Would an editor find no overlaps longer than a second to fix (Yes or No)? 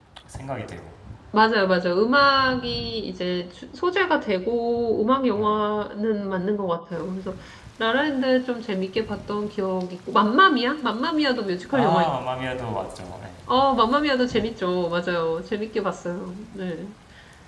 Yes